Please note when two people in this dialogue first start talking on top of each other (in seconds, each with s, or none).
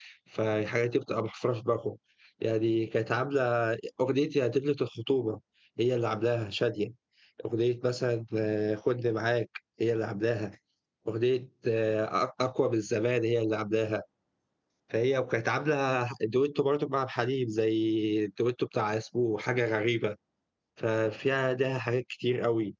none